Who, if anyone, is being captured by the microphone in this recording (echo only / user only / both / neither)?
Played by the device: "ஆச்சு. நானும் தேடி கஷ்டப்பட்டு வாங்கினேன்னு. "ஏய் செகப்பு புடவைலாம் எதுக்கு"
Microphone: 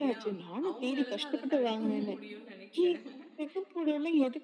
both